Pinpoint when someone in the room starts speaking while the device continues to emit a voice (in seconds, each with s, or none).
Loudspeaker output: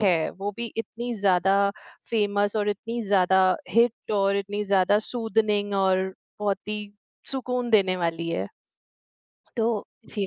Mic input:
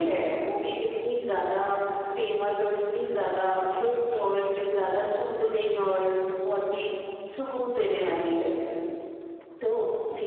none